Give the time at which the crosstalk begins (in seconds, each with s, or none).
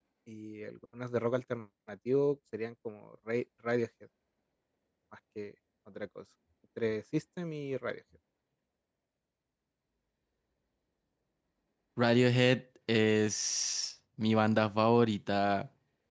none